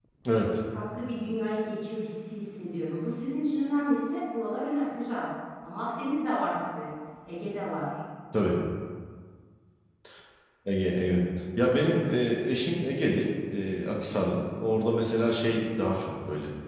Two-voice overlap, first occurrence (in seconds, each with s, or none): none